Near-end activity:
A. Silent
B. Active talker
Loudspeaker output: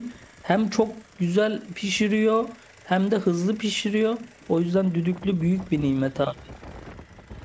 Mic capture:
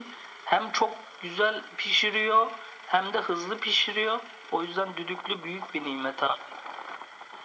A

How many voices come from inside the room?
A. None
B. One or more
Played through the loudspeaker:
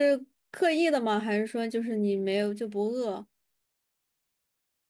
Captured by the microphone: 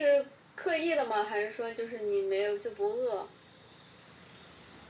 A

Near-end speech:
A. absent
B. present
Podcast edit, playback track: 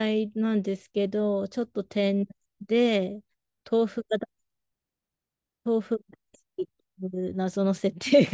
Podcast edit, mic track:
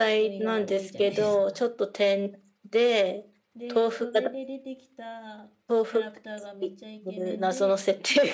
B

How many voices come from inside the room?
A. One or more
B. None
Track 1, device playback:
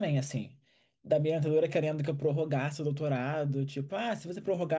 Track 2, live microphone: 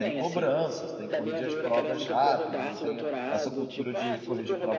A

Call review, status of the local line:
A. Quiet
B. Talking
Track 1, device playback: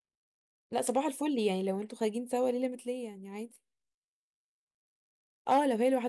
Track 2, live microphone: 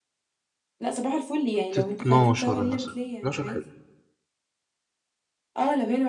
B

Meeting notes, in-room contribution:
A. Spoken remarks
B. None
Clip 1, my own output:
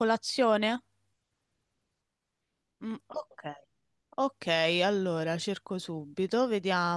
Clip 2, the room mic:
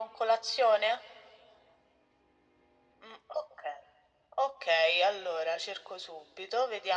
B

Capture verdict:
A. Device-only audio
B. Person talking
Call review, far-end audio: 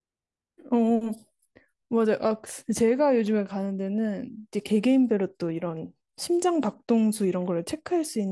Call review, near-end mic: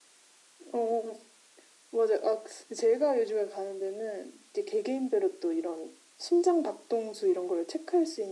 A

